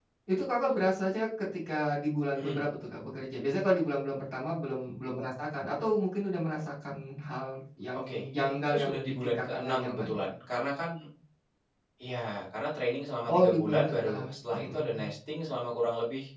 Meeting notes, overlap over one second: present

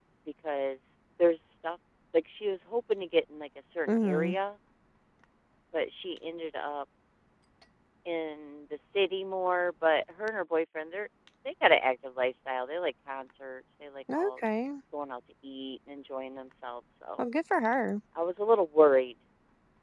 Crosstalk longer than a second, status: none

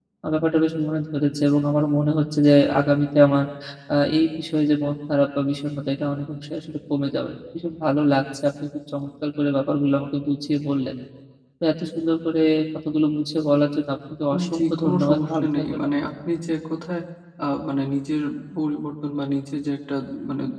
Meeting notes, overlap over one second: present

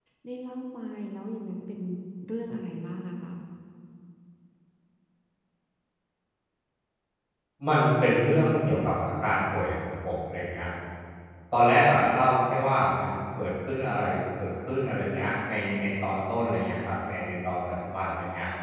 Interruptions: none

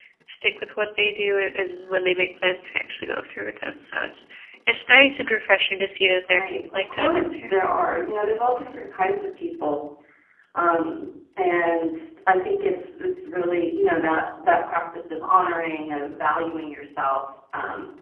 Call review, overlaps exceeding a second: present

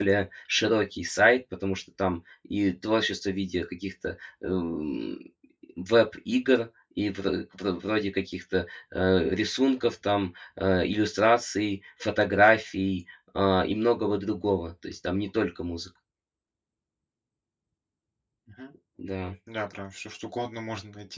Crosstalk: none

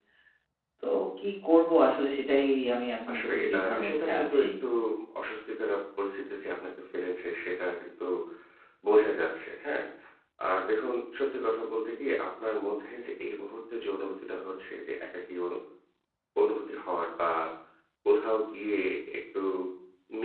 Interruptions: present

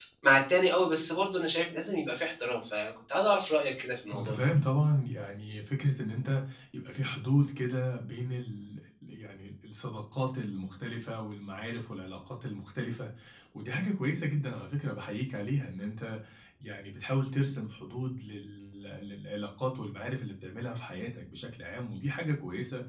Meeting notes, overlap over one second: none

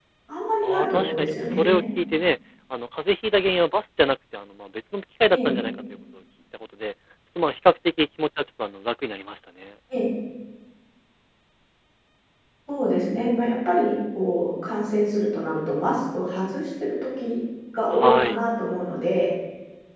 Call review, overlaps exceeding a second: present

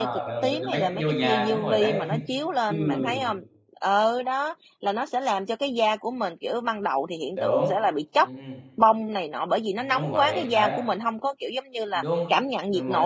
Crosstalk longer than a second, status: present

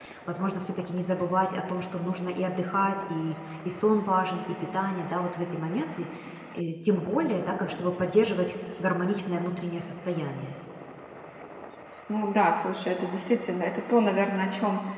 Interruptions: none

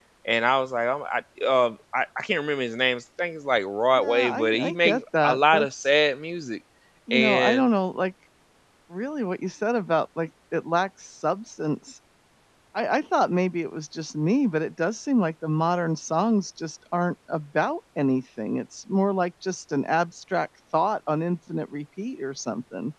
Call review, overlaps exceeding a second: present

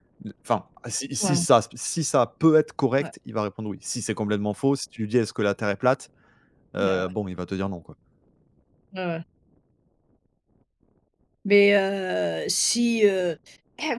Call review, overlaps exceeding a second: none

